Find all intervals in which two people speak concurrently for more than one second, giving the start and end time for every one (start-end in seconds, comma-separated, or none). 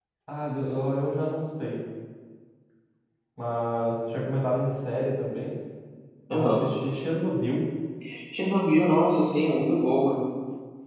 none